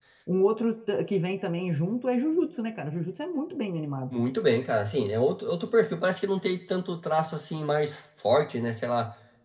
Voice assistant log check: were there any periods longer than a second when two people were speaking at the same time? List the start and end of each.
none

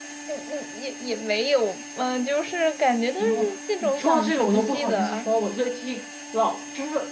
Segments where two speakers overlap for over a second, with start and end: 3.2-5.3

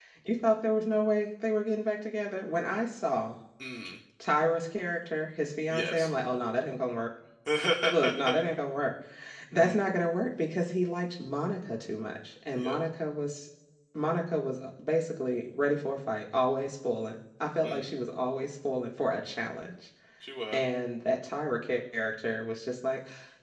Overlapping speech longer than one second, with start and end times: none

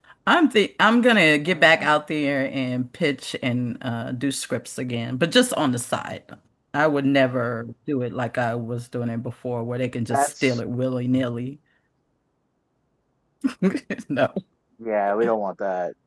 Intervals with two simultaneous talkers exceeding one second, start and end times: none

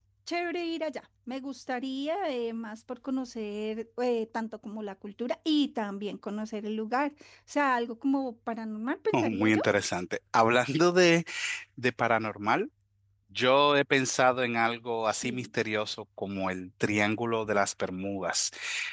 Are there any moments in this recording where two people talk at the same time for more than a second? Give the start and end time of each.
none

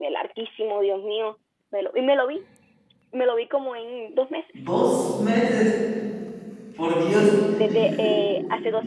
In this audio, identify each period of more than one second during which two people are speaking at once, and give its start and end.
none

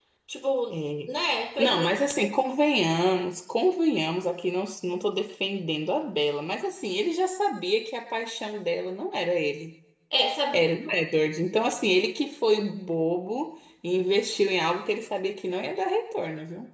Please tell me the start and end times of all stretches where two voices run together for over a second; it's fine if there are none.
none

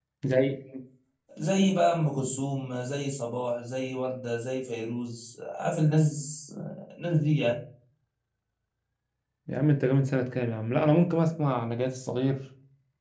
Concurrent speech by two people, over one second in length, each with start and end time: none

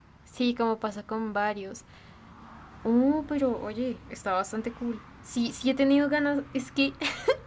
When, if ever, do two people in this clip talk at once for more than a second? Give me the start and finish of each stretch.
none

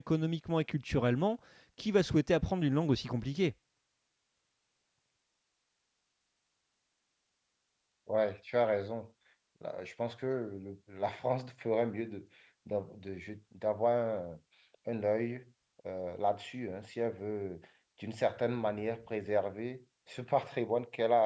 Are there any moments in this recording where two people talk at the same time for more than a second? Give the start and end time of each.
none

